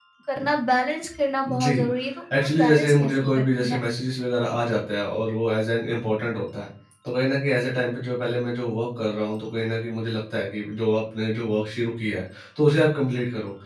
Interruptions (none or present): present